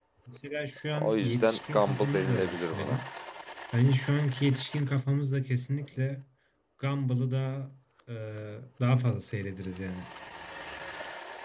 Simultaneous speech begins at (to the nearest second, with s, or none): 1 s